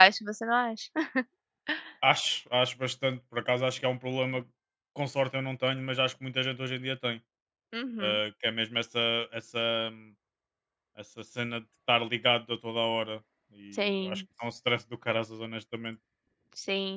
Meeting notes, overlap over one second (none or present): none